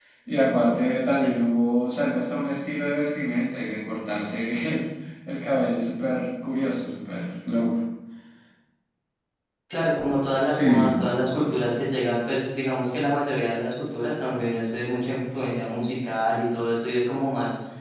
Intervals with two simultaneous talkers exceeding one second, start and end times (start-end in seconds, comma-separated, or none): none